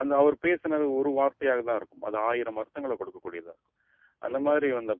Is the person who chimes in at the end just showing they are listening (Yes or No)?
No